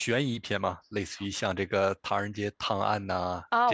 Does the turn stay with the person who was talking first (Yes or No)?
No